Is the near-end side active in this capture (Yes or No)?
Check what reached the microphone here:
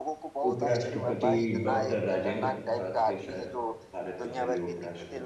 Yes